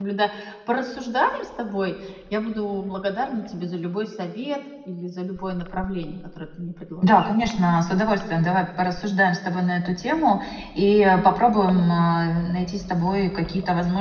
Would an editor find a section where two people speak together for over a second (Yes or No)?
No